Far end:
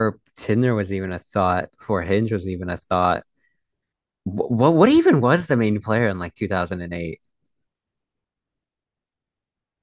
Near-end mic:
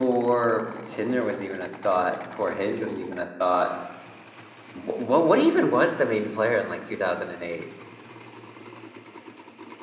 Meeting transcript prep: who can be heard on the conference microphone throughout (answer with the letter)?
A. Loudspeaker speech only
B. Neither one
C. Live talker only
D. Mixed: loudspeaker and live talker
A